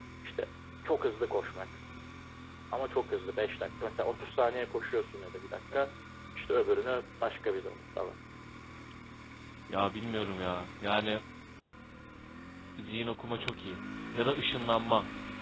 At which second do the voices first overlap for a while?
none

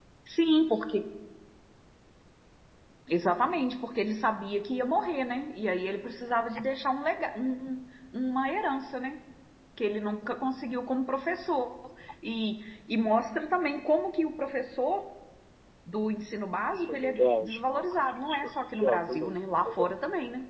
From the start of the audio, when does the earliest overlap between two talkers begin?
16.7 s

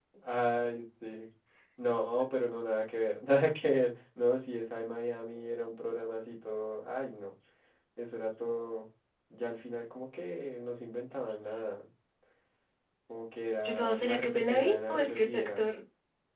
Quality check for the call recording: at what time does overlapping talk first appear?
13.6 s

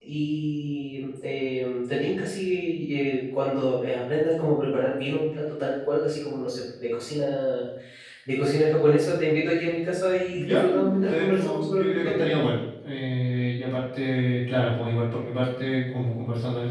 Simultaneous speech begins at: 10.3 s

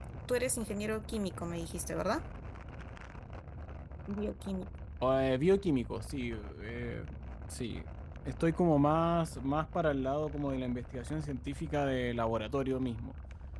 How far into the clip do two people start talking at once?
none

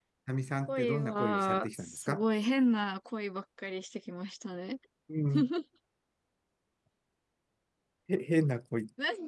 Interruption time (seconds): 0.7 s

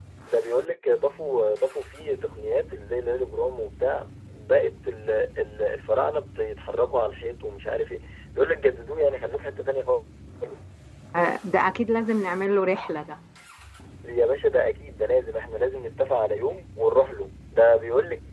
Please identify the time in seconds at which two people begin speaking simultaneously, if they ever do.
none

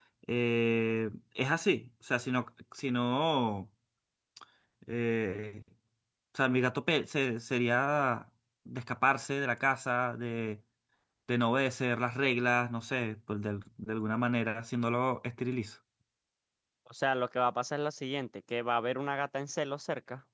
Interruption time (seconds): none

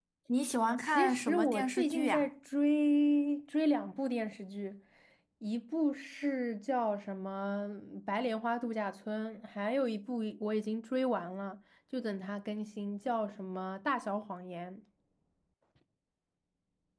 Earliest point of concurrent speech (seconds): 0.8 s

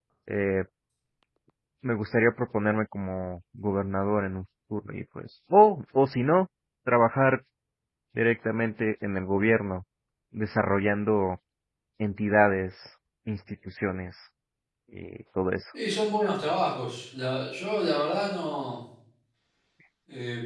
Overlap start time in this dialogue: none

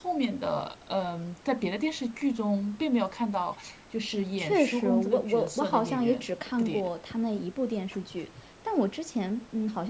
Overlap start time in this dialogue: 4.4 s

